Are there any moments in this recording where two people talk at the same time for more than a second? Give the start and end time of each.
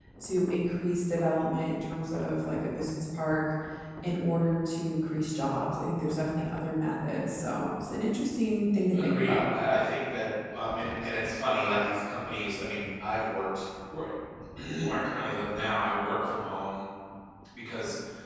none

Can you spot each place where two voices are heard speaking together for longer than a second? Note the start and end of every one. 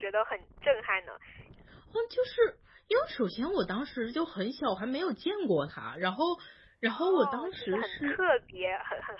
6.9-8.2

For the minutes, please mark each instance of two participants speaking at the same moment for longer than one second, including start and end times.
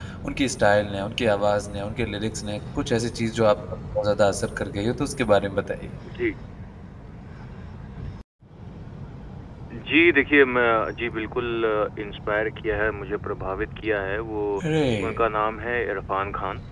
none

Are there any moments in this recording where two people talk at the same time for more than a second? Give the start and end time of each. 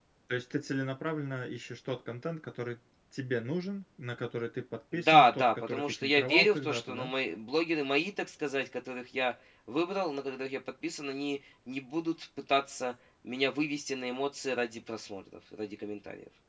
4.9-7.1

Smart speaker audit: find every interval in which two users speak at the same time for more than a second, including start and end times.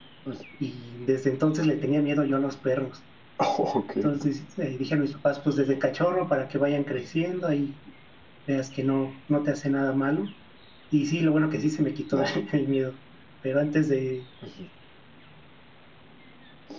none

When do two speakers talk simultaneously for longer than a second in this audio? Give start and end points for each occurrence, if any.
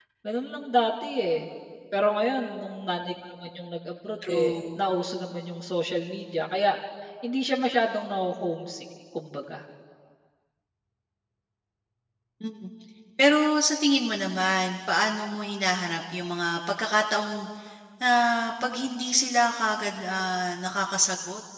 none

